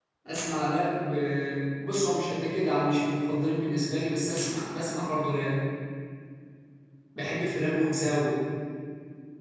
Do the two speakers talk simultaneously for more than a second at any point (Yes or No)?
No